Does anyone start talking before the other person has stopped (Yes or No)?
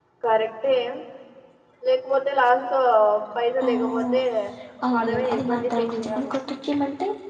Yes